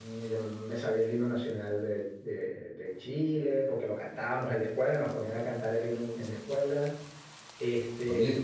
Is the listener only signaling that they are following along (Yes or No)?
No